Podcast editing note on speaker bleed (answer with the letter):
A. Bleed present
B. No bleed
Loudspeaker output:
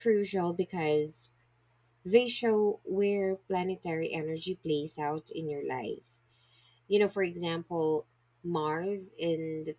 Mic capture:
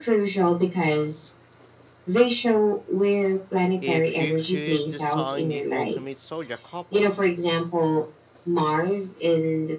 A